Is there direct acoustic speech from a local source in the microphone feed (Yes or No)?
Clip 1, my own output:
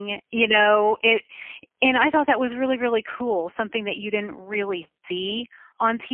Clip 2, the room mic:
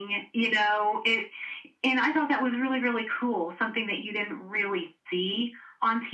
No